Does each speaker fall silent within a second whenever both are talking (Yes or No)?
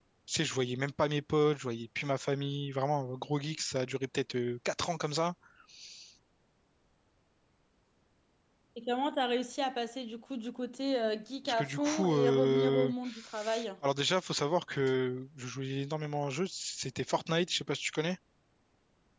No